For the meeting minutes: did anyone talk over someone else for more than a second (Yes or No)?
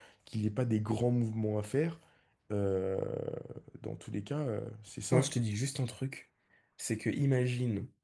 No